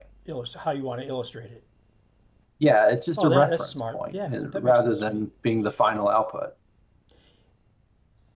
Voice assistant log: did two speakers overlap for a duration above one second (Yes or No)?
Yes